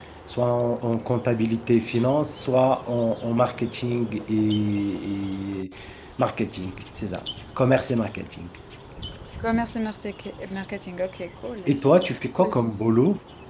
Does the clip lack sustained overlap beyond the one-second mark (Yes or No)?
Yes